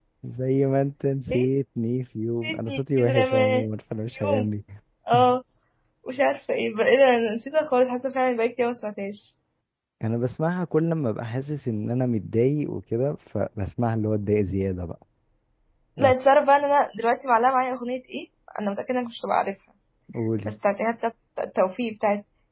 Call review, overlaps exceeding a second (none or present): present